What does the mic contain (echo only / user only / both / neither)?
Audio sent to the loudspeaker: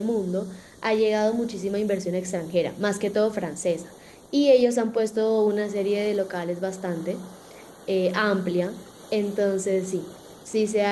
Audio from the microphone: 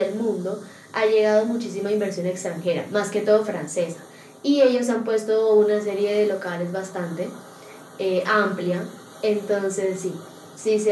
echo only